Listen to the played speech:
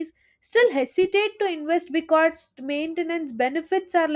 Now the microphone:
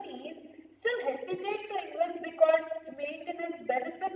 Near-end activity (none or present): none